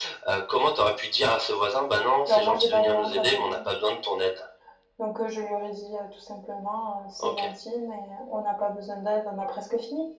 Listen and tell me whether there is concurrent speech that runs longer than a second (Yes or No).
Yes